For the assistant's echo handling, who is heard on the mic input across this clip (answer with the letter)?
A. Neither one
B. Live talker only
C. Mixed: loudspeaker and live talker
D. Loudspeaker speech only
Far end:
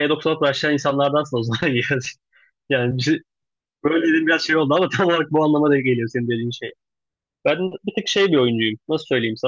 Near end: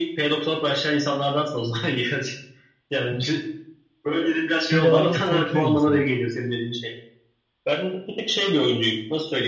C